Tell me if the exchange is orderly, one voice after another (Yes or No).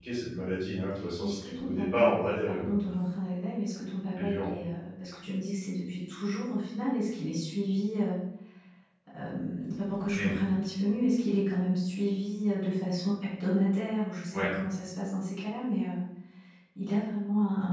No